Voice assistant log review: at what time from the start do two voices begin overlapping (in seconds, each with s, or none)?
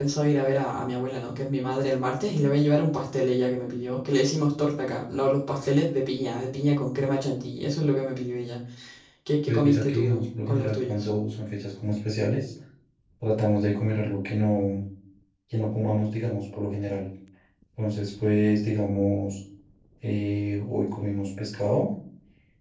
9.5 s